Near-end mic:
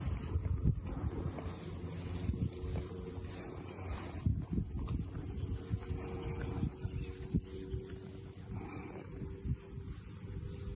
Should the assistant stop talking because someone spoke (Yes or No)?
No